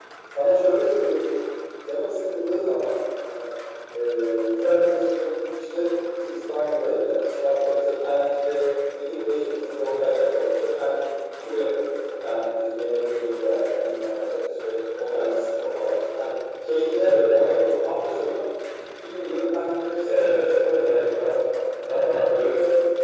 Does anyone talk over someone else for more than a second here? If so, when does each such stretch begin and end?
20.0-21.4

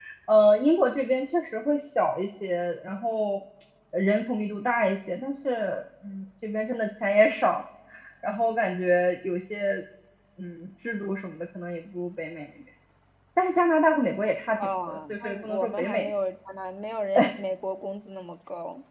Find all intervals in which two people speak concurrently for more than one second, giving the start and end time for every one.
14.6-16.1

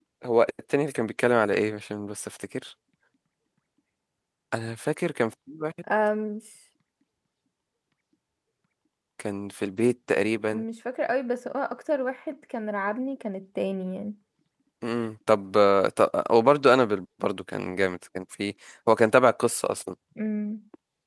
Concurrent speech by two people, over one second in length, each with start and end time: none

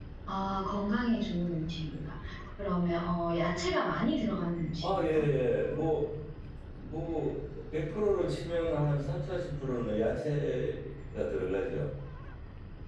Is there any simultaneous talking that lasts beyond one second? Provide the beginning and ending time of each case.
none

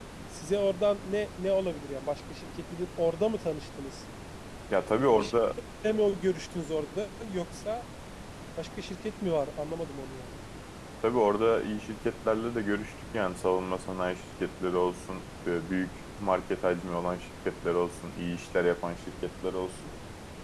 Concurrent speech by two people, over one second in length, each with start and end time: none

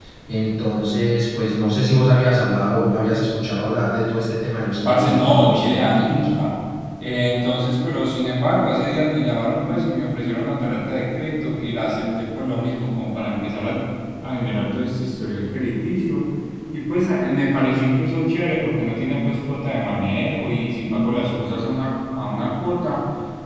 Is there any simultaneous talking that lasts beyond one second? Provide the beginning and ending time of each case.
4.8-6.2

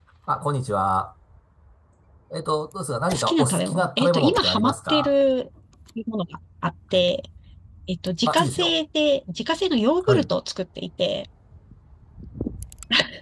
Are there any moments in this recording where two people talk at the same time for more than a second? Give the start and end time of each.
3.1-5.1

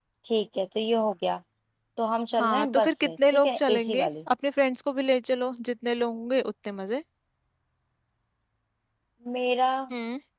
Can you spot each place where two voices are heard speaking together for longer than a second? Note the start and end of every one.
2.4-4.1

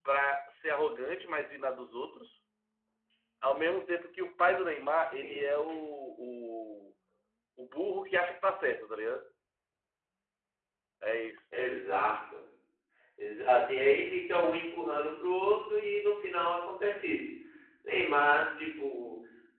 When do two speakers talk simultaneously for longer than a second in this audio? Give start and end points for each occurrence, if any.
none

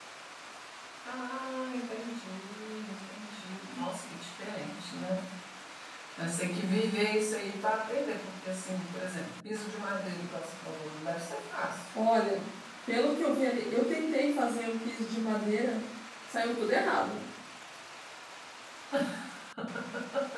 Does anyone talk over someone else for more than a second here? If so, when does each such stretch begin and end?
none

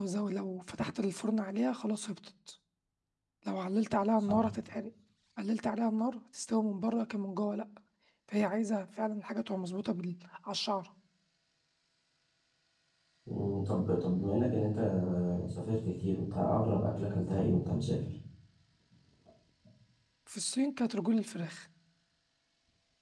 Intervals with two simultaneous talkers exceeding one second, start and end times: none

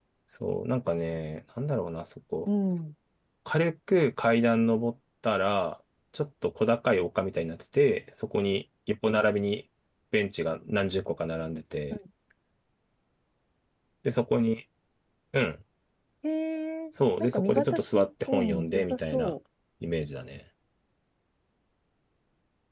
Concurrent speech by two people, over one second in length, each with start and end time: 17.2-19.3

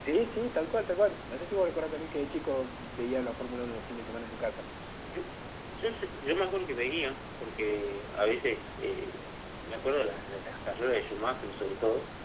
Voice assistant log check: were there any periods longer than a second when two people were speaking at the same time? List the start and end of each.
none

